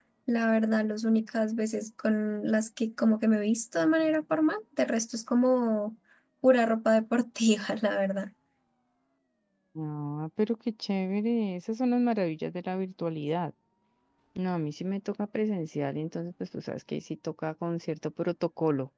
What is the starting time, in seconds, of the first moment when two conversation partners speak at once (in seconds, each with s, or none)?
none